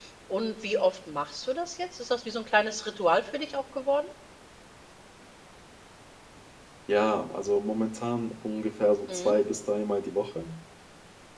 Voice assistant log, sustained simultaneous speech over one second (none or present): none